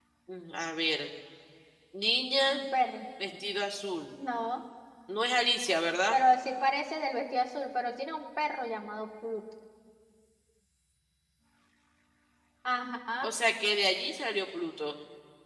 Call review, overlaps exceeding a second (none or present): none